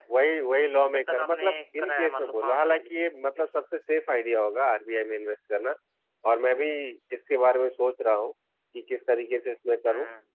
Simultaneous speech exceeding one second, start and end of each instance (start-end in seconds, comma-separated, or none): 0.9-2.9